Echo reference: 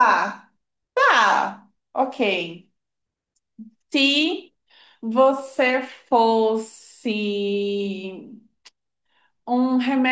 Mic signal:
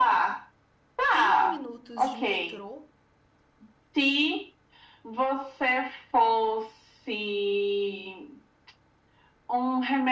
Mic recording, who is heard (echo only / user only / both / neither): both